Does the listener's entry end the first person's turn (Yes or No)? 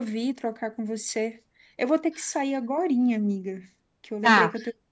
No